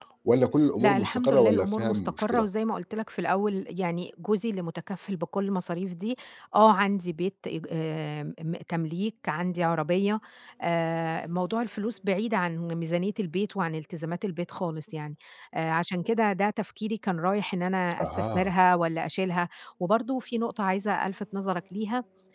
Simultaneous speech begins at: 0.8 s

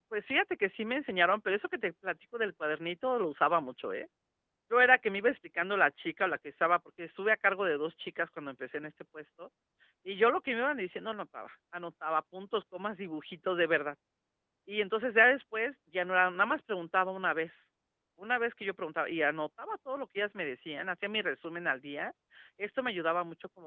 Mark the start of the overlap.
none

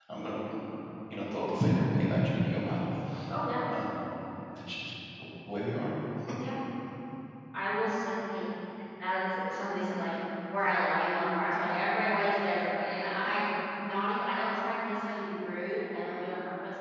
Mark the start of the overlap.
none

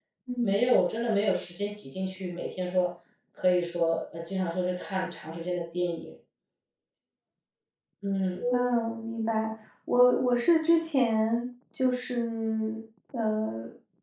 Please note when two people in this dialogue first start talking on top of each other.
none

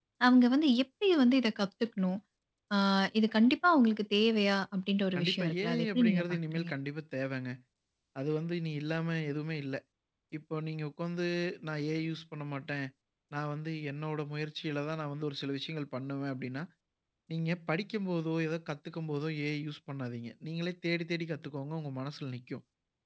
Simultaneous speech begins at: 5.2 s

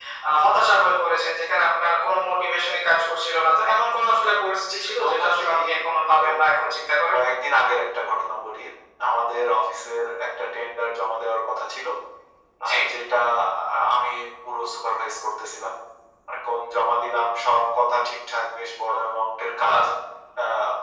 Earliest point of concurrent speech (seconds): 4.7 s

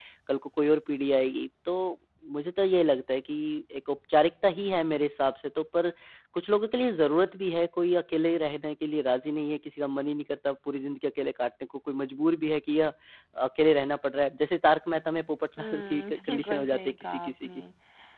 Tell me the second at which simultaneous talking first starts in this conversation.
15.6 s

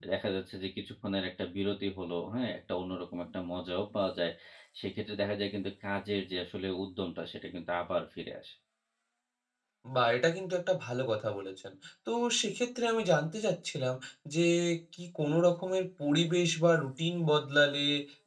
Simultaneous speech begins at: none

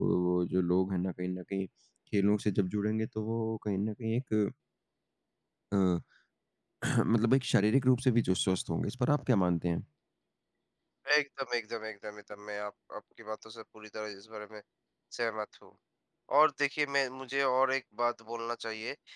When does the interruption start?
none

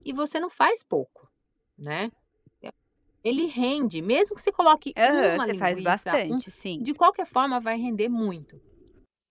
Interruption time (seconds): 5.0 s

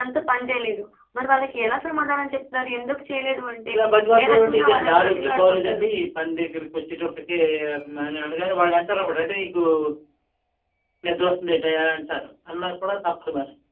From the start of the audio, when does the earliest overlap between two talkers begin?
4.2 s

